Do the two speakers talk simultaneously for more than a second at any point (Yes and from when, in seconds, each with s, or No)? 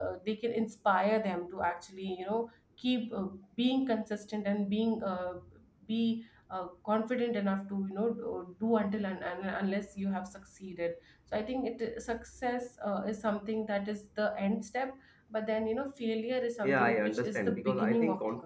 Yes, from 16.6 s